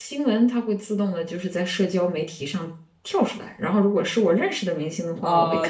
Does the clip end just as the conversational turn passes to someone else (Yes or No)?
Yes